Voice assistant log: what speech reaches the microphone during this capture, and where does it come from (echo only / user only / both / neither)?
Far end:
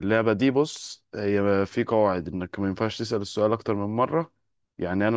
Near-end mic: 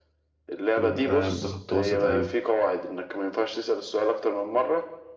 both